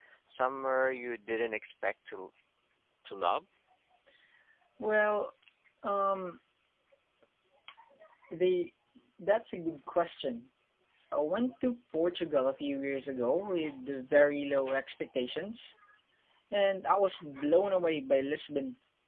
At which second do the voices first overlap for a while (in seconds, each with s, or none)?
none